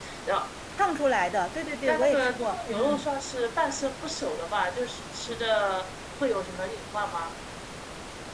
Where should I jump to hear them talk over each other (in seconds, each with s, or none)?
1.9 s